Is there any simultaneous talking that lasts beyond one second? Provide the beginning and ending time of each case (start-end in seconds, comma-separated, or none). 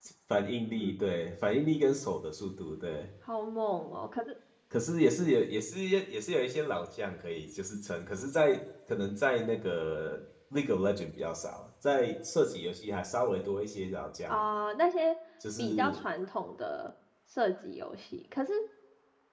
none